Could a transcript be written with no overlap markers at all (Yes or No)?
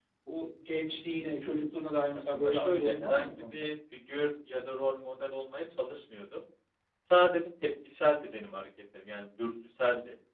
No